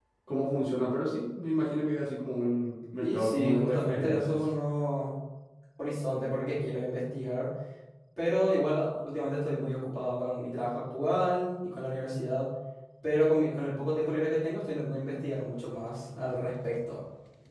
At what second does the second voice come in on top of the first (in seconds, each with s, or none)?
3.0 s